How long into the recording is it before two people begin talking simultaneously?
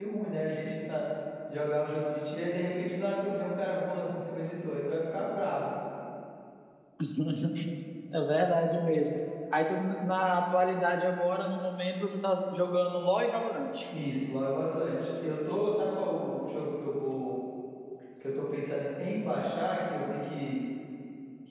none

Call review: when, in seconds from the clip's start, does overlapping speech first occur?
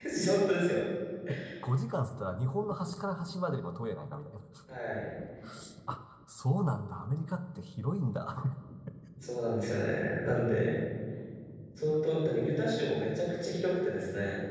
none

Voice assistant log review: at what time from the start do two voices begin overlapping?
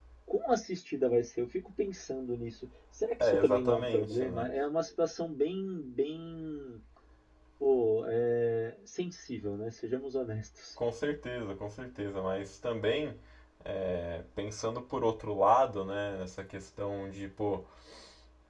3.2 s

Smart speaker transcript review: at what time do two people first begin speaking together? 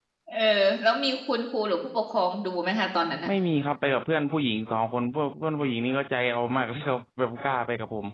none

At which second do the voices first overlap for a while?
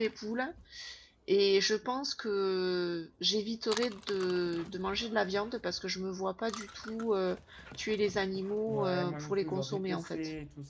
8.7 s

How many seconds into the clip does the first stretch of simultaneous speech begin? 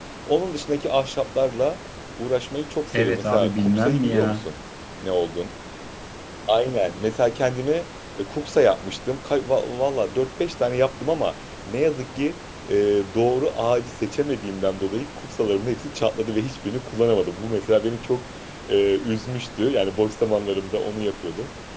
2.9 s

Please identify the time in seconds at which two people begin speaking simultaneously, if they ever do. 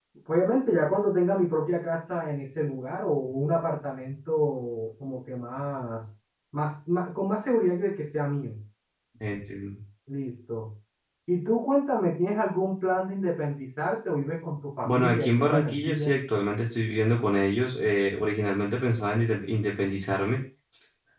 14.8 s

